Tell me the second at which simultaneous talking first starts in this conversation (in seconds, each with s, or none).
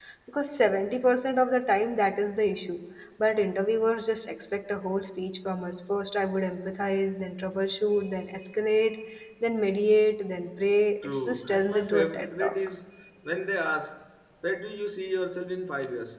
11.0 s